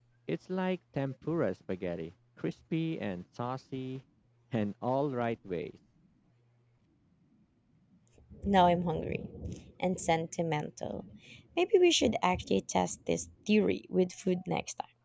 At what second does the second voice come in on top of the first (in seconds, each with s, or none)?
none